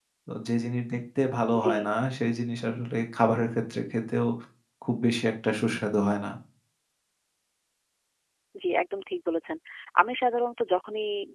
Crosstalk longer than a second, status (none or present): none